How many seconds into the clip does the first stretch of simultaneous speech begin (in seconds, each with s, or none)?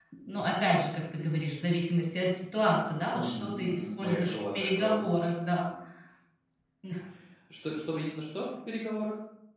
3.1 s